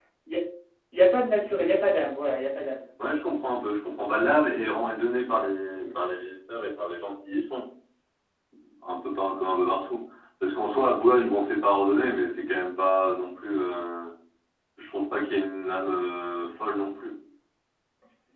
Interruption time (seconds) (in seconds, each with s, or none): none